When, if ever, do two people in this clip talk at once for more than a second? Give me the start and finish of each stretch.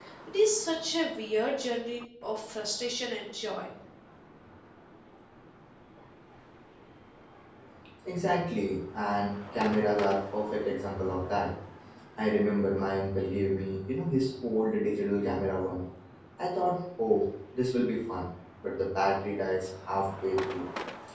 none

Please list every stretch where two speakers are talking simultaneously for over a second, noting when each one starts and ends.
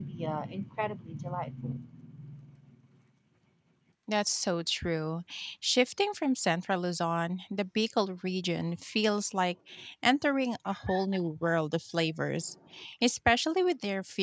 none

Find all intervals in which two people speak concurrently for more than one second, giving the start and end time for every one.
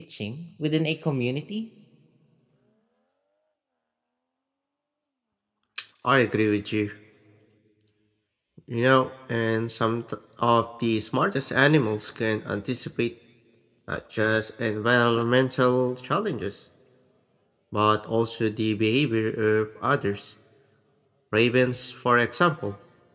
none

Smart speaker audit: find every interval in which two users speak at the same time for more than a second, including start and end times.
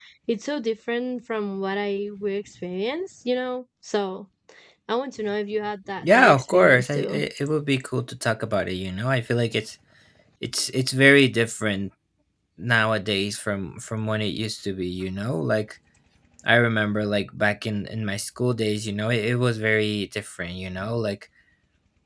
6.0-7.2

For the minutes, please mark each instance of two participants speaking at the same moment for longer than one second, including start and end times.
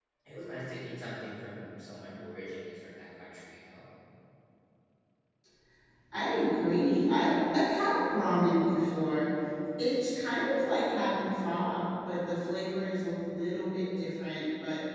none

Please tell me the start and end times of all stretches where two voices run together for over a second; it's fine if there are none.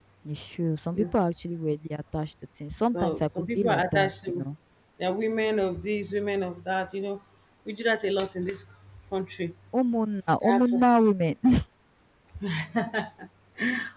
2.9-4.4

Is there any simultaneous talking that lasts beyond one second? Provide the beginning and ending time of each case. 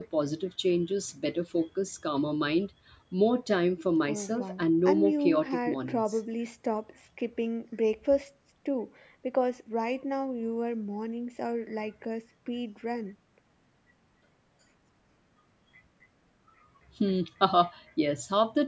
4.1-6.2

